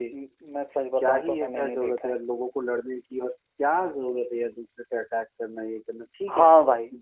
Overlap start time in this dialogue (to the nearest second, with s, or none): 1 s